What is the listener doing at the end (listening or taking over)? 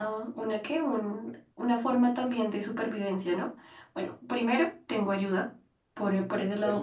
listening